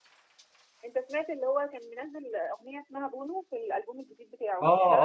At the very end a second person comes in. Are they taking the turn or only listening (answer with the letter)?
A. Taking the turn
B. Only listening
A